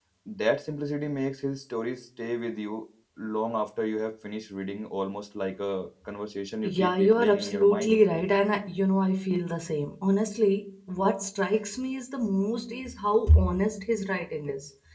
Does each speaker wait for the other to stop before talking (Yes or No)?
No